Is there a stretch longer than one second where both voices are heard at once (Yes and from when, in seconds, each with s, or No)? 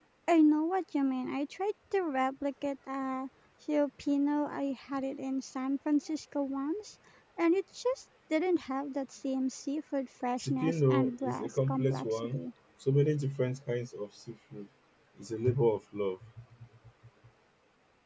Yes, from 10.4 s